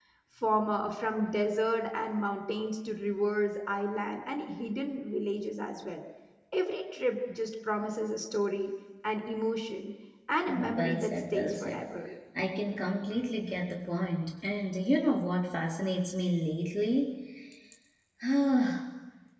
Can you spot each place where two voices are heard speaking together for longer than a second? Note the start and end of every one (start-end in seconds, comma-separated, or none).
10.5-11.8